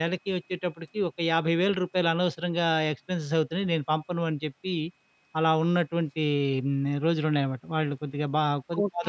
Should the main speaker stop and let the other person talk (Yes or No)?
Yes